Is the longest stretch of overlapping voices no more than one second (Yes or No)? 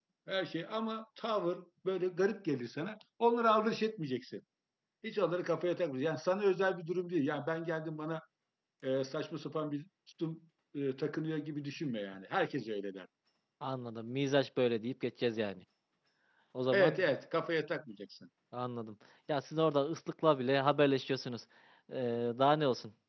Yes